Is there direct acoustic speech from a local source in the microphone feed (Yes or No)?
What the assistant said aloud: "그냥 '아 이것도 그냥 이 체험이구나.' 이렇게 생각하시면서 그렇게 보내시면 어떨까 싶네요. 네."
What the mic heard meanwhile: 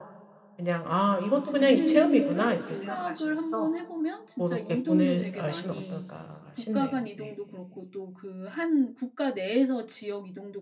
Yes